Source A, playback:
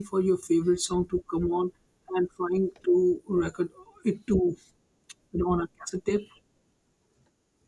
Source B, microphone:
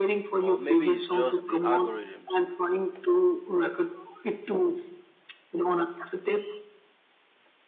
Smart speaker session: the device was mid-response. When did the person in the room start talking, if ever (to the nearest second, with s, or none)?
0 s